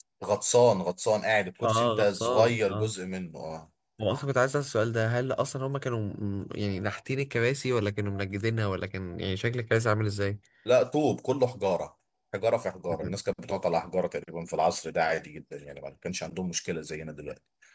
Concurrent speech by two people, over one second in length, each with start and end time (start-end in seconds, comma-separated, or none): 1.6-2.9